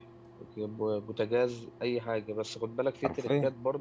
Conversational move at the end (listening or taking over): listening